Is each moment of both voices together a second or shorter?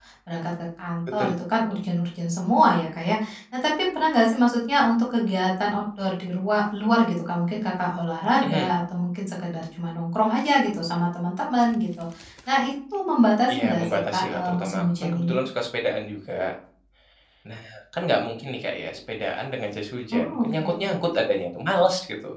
No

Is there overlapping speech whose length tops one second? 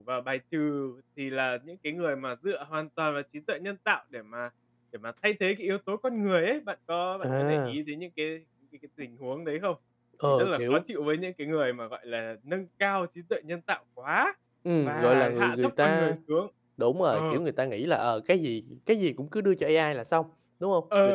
Yes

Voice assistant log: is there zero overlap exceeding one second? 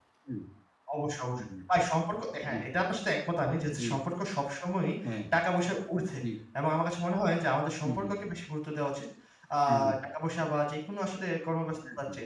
Yes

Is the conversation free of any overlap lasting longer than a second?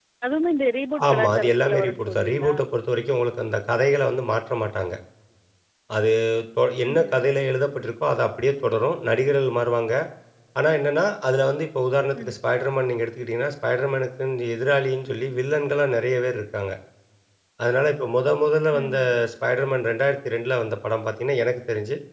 No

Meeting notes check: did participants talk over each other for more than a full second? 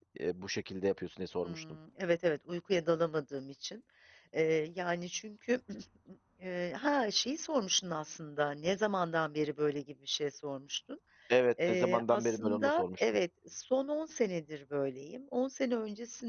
Yes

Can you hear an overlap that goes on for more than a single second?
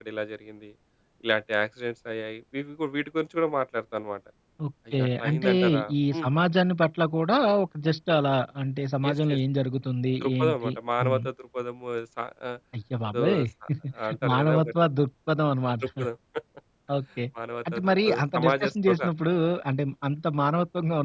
Yes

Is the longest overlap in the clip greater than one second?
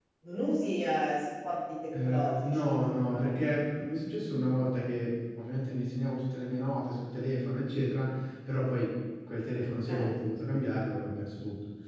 Yes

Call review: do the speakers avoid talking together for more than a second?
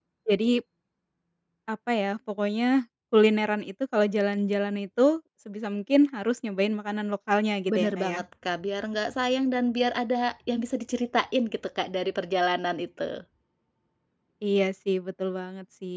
Yes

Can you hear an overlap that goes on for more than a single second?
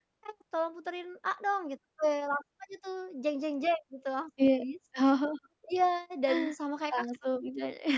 No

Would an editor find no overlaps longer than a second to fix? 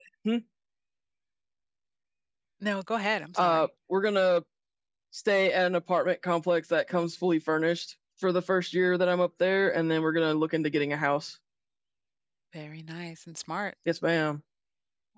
Yes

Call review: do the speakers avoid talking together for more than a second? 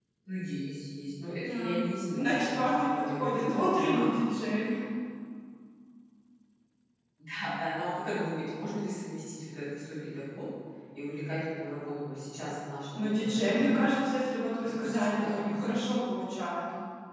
No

